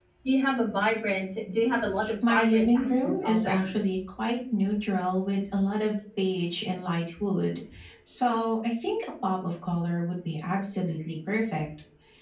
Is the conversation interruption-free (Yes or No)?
No